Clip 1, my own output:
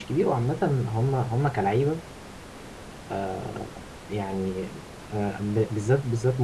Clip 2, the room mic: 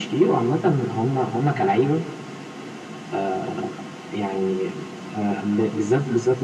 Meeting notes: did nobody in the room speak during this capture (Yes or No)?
Yes